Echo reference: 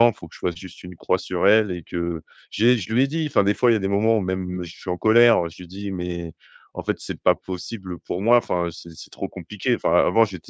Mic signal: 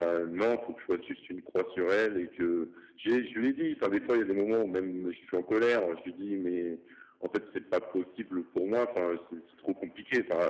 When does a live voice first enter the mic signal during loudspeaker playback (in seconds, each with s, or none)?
3.9 s